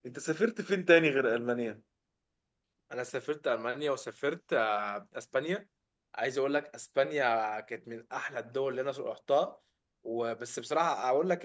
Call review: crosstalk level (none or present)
none